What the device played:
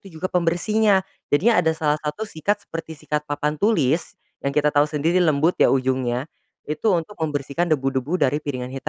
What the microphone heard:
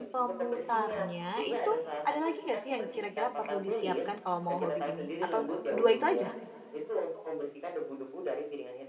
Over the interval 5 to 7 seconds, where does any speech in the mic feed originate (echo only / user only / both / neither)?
both